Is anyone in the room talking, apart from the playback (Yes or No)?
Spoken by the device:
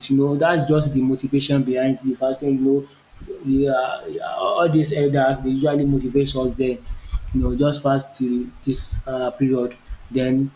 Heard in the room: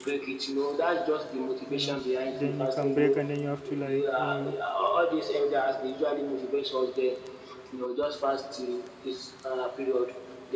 Yes